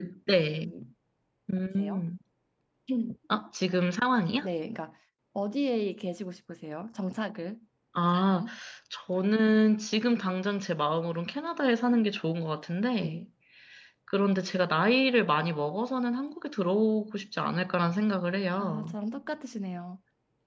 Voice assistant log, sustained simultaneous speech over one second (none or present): none